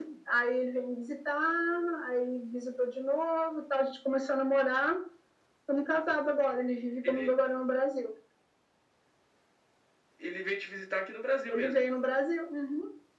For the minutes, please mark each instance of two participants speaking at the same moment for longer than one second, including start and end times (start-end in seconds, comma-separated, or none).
none